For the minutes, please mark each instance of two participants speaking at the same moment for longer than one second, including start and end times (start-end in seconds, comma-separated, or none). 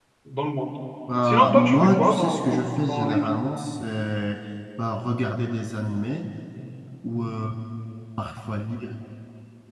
1.3-3.3